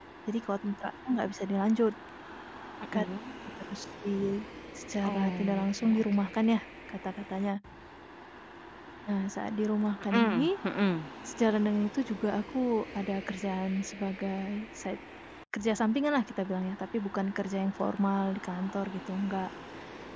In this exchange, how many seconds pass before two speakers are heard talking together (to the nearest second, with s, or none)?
5 s